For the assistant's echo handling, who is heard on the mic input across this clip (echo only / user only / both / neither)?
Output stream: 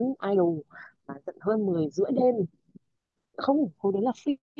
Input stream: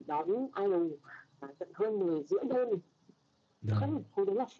both